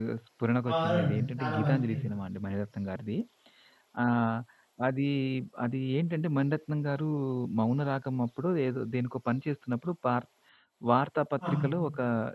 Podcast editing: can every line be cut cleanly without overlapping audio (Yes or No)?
No